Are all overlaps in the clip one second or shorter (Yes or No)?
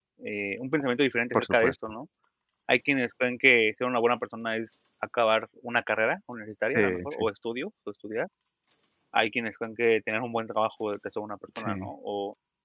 Yes